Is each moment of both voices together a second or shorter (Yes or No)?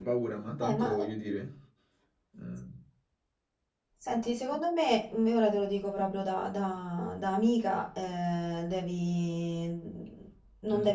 Yes